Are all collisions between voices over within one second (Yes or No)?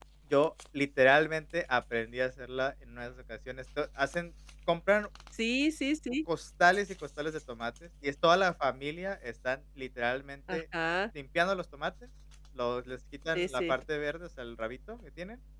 Yes